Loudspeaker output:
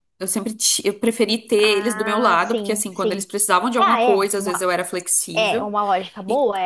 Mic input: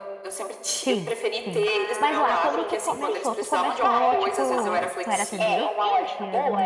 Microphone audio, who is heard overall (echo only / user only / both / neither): both